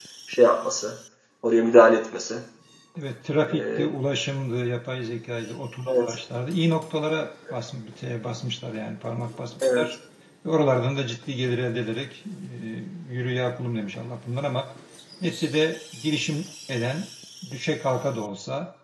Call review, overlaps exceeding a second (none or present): none